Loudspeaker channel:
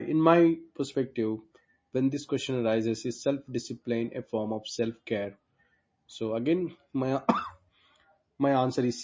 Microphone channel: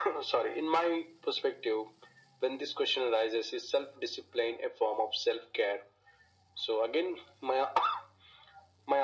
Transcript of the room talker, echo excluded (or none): none